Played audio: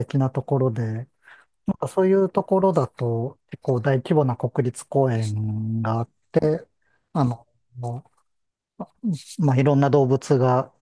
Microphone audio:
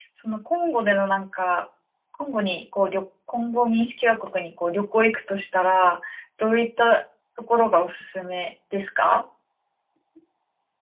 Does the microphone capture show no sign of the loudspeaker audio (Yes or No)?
Yes